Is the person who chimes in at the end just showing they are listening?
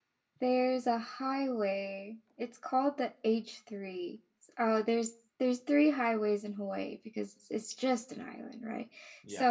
Yes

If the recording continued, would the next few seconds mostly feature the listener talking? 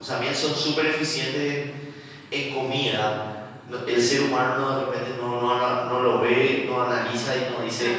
No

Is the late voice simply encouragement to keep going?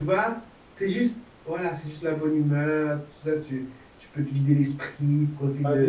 No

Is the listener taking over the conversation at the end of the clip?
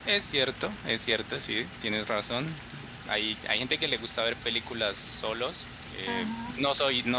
No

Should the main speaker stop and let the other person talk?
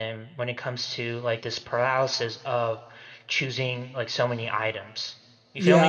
Yes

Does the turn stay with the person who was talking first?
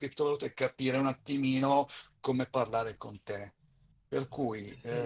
Yes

